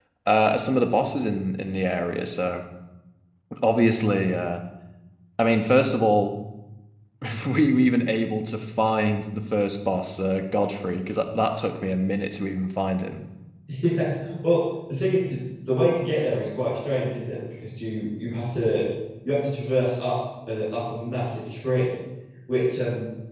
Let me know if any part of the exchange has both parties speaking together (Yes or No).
No